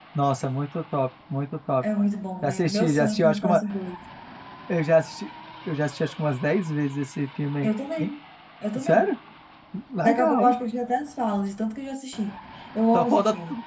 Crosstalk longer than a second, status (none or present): present